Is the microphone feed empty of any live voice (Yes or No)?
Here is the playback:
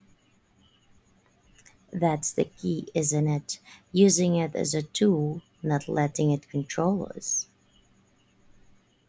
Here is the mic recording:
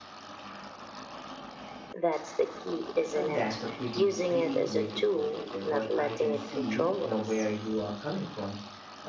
No